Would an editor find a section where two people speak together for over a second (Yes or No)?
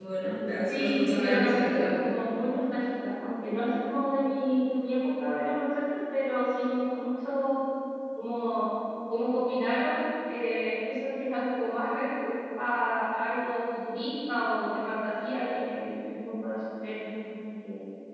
Yes